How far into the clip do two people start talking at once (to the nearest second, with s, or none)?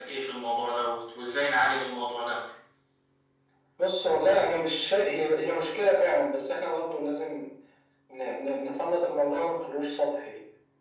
none